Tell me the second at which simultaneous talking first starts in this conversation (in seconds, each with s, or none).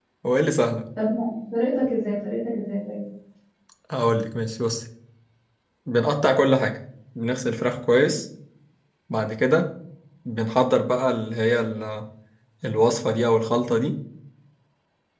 none